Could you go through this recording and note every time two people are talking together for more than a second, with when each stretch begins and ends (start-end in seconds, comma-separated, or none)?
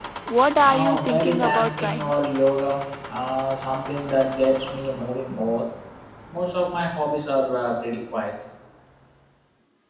0.6-2.1